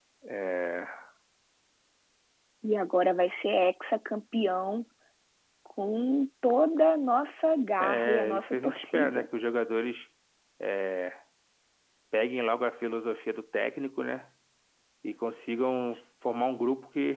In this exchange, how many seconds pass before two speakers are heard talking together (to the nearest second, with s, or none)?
8 s